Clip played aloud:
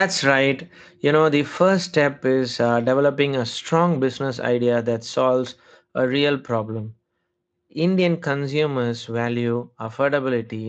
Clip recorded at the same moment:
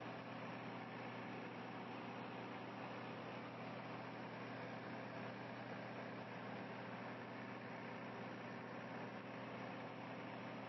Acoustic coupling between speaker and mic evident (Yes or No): No